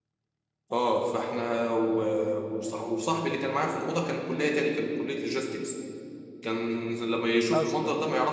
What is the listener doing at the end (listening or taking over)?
listening